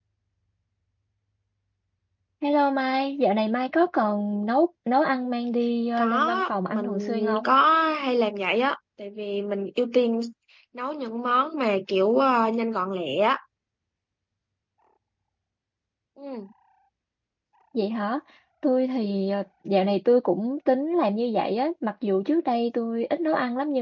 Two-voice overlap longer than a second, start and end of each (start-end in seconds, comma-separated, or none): 6.0-7.5